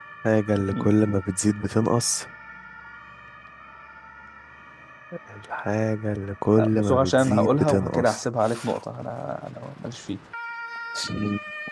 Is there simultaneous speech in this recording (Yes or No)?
Yes